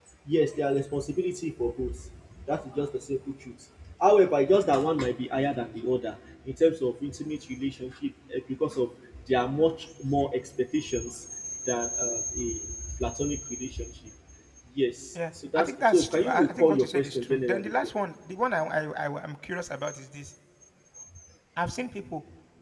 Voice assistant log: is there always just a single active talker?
No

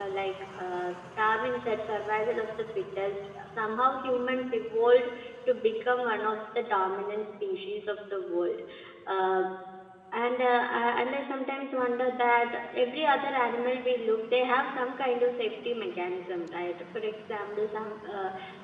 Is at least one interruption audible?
No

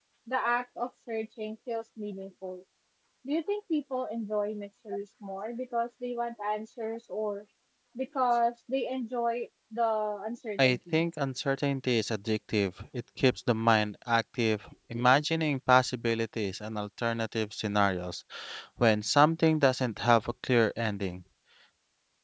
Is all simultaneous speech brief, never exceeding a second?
Yes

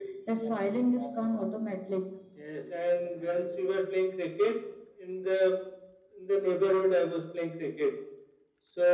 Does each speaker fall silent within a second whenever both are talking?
Yes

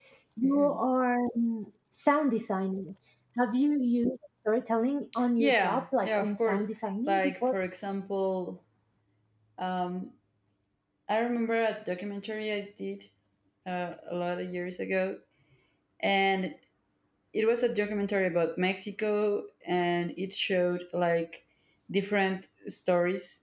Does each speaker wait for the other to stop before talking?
No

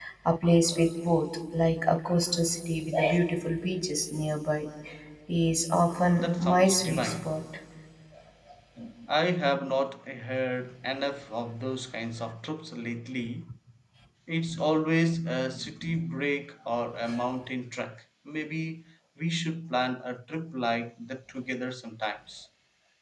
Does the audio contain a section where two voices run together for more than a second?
Yes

